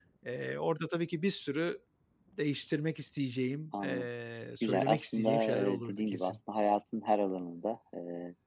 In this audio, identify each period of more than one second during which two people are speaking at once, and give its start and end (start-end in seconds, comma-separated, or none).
4.6-6.4